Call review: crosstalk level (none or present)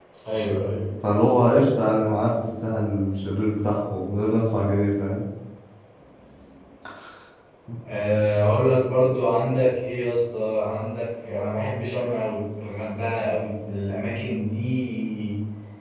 none